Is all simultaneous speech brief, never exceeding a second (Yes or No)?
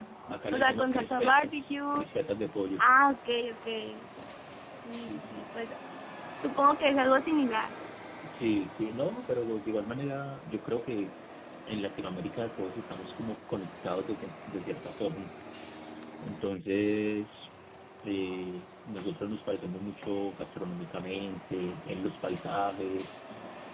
No